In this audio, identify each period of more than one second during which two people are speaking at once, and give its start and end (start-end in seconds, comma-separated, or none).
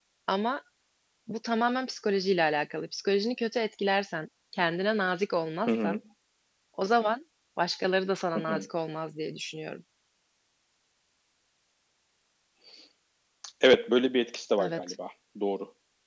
none